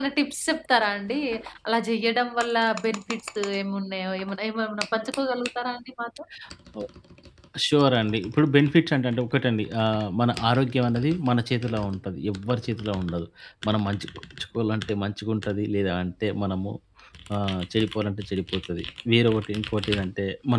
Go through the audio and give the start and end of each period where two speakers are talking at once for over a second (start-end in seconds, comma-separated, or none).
none